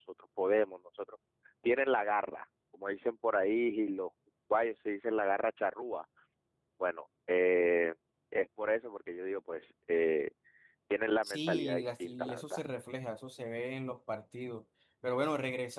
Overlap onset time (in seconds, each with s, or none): 11.2 s